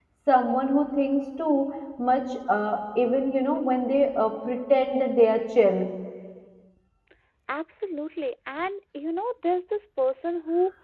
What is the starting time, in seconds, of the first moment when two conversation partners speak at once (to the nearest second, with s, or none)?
none